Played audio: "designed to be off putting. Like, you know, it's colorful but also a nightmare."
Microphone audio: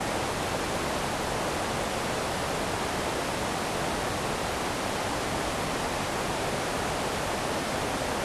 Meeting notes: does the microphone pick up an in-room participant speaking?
No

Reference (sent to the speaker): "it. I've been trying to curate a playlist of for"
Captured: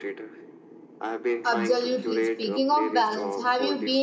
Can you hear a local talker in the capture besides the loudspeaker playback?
Yes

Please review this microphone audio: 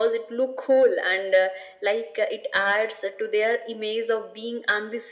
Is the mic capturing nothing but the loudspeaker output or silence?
Yes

